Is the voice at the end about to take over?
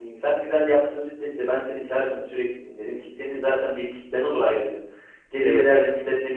No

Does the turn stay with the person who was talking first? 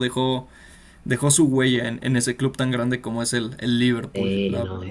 No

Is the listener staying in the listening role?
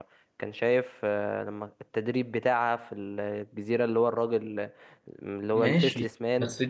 No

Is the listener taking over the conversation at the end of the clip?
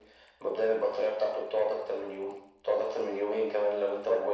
Yes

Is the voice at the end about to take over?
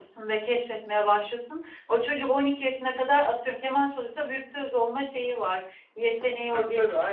Yes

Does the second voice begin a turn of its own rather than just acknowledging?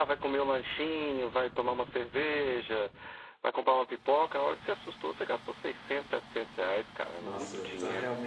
Yes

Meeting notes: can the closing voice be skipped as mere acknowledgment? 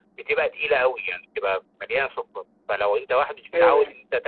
Yes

